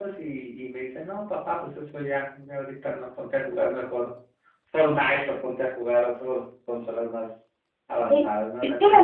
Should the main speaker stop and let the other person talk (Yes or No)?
Yes